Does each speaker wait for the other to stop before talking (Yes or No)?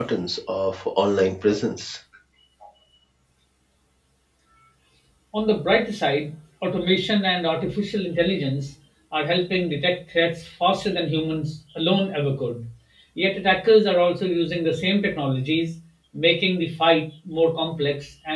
Yes